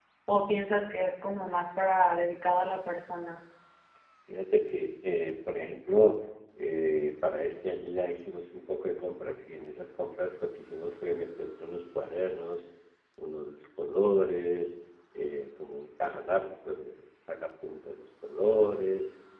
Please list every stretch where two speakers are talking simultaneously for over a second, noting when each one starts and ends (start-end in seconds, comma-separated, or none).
none